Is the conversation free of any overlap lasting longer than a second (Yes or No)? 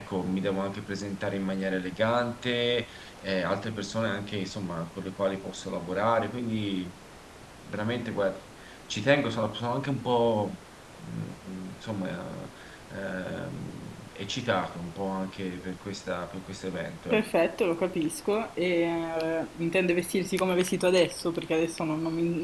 Yes